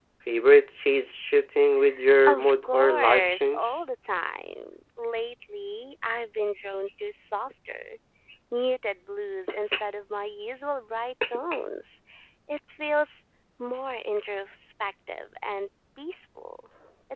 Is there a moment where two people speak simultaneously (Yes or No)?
Yes